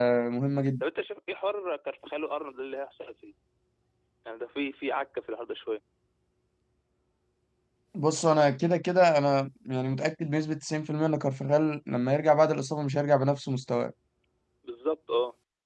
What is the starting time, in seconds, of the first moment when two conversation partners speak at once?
none

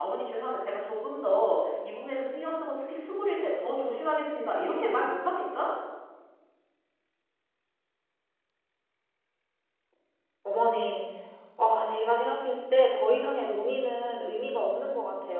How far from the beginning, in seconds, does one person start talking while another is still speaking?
none

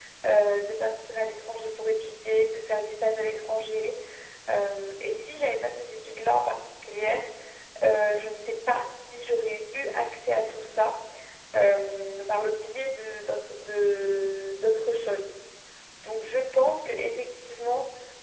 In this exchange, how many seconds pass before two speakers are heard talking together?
none

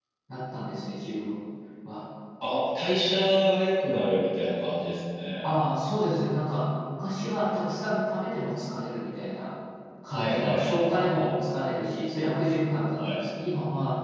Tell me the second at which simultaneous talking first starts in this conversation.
10 s

